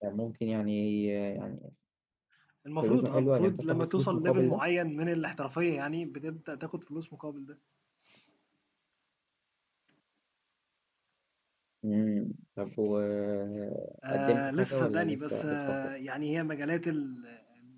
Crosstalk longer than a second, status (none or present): present